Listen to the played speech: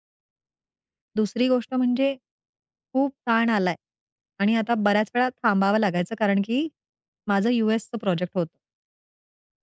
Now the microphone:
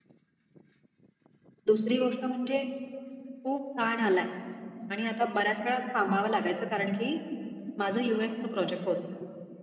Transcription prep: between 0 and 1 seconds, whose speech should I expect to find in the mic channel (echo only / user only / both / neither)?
neither